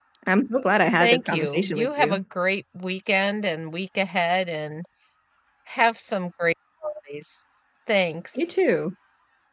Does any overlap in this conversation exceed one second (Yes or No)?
Yes